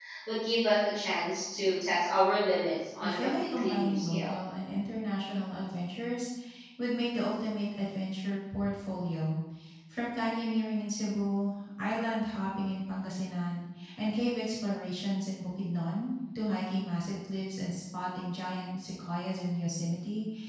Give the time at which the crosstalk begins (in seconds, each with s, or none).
3.0 s